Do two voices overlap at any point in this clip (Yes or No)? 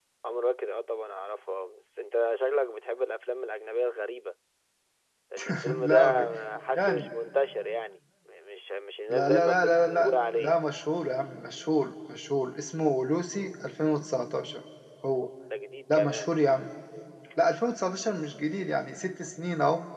Yes